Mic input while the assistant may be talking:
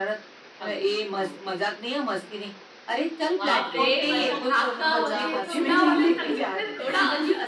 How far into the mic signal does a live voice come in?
3.4 s

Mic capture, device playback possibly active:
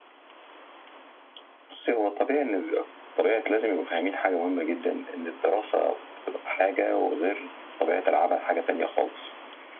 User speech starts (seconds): none

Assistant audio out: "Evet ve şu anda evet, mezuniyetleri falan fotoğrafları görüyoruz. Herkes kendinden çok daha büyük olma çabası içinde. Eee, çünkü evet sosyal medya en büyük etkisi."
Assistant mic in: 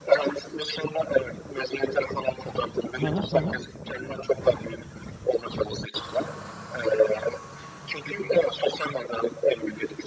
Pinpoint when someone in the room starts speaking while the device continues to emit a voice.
2.9 s

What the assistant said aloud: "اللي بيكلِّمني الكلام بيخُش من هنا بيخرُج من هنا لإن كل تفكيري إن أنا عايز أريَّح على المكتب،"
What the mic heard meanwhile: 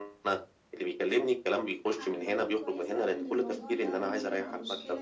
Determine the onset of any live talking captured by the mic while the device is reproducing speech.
2.0 s

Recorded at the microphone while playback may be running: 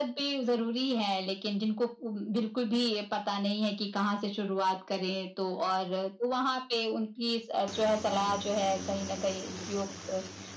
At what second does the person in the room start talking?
none

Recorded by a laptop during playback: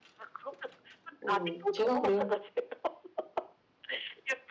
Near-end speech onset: 1.2 s

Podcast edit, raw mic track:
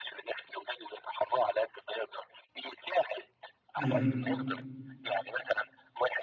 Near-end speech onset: 3.8 s

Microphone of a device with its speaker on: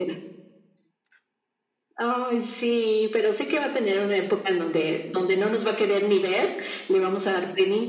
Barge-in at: none

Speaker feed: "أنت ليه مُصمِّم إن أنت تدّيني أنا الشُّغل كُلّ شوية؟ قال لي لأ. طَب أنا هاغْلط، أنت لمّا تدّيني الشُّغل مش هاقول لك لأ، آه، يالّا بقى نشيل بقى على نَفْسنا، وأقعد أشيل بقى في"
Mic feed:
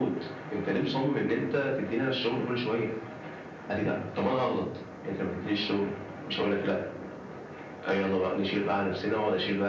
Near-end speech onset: none

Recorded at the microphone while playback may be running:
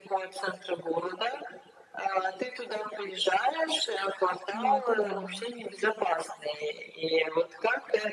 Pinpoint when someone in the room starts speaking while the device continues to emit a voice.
4.5 s

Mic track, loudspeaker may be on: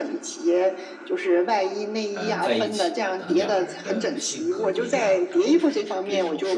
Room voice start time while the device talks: 2.1 s

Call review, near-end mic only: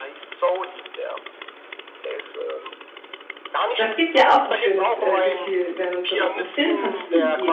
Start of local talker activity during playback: 3.8 s

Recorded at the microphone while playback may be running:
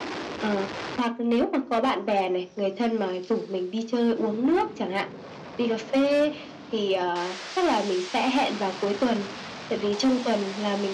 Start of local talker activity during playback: none

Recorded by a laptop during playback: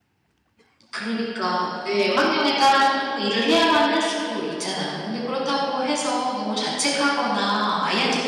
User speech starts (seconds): 0.9 s

